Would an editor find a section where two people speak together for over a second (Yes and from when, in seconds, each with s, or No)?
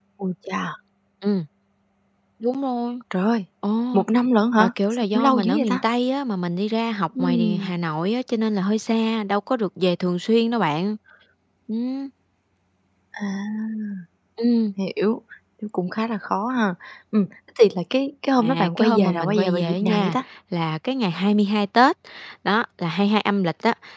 Yes, from 4.6 s